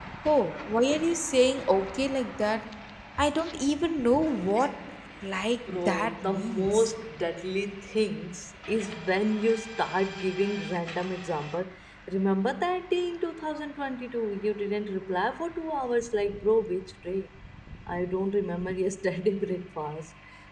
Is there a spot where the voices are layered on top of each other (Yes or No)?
Yes